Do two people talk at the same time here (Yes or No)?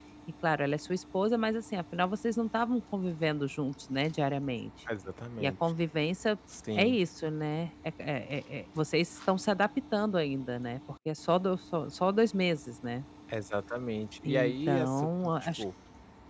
Yes